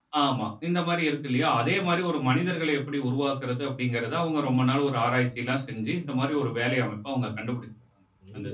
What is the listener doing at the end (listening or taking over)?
taking over